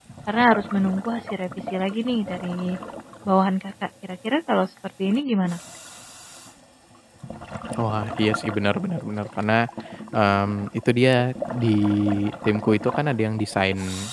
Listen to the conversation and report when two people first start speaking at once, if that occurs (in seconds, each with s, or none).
none